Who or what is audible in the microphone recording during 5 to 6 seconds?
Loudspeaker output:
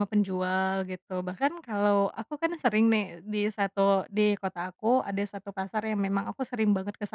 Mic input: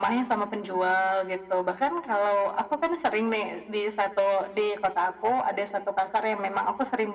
echo only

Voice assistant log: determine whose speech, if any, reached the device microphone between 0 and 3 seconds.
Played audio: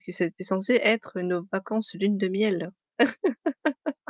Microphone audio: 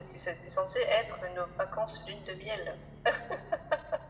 echo only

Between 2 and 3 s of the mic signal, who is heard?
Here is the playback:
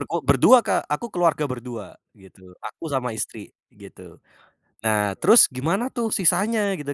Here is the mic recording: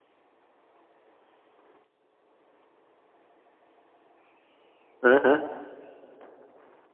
neither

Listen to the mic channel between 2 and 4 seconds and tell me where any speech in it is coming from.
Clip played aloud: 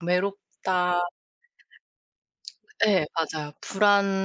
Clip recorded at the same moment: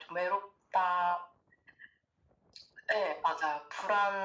echo only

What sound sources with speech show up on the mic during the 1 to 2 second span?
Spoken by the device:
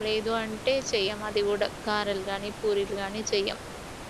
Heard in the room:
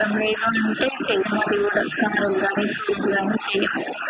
echo only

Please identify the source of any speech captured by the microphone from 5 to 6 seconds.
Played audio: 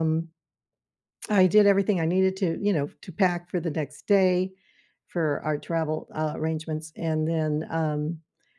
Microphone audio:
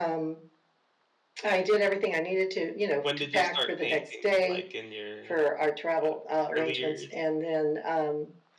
both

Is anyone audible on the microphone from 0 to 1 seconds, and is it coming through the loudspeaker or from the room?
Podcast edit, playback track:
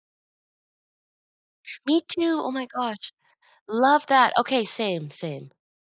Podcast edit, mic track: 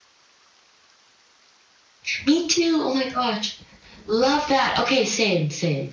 neither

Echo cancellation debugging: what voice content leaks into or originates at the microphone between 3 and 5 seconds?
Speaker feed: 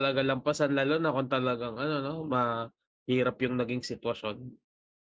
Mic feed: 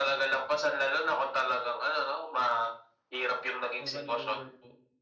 both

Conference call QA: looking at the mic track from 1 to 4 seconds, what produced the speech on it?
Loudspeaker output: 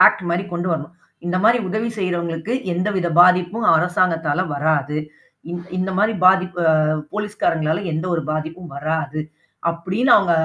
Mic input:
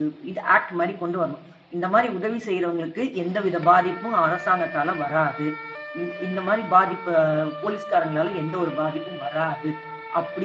echo only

